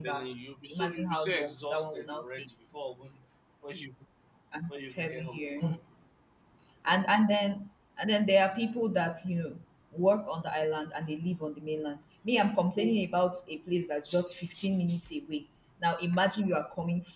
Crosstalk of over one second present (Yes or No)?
Yes